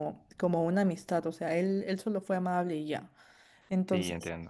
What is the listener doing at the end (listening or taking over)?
taking over